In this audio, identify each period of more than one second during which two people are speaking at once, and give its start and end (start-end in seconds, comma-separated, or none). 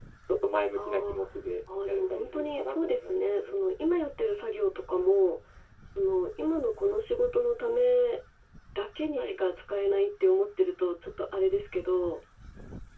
1.9-3.6